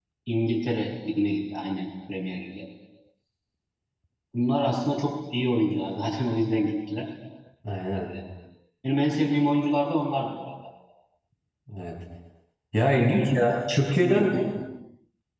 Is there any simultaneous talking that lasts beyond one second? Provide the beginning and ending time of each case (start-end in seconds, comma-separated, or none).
12.9-14.4